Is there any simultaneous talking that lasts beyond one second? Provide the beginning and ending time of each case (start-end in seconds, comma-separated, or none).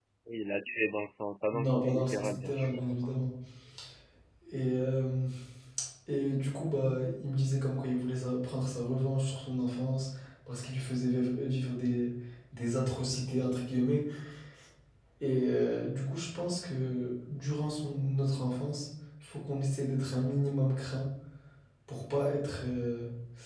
1.5-3.2